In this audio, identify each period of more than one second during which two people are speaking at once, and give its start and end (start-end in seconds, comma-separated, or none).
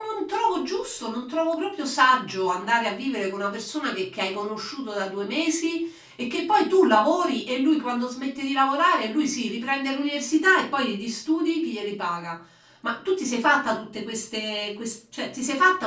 none